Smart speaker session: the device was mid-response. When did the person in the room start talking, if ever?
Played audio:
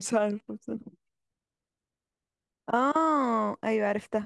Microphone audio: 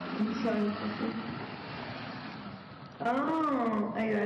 none

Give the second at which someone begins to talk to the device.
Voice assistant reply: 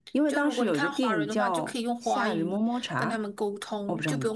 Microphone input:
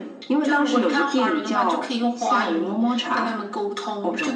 none

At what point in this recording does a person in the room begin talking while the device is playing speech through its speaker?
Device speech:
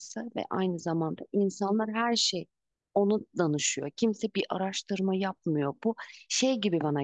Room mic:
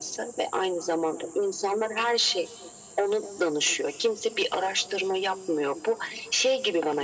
none

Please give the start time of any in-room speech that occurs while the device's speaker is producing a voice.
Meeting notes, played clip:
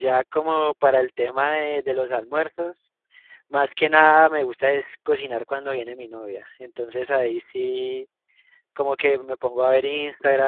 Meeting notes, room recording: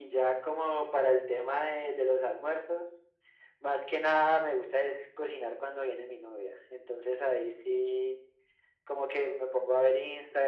none

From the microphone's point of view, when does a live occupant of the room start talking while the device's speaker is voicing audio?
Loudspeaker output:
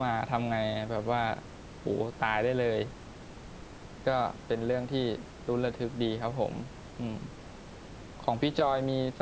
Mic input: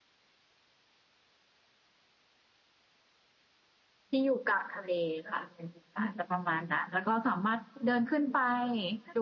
4.1 s

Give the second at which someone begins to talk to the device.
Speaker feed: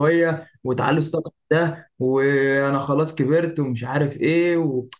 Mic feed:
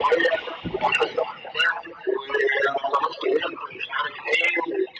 none

